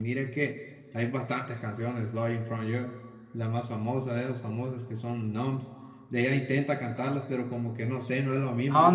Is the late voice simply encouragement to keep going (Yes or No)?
No